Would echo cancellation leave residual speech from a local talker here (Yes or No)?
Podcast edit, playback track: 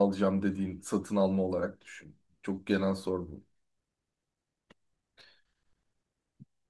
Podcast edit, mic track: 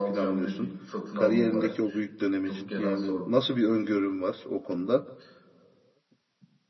Yes